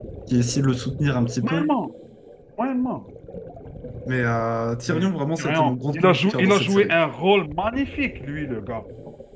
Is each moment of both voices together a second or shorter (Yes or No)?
No